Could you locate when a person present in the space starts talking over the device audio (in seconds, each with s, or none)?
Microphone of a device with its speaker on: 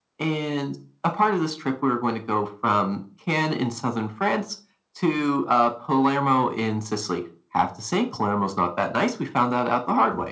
none